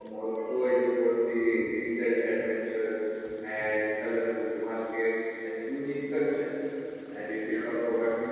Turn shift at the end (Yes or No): No